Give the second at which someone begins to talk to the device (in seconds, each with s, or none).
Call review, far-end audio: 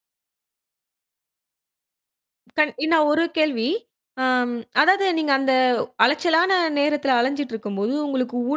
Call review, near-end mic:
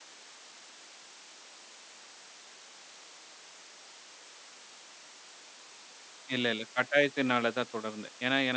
6.3 s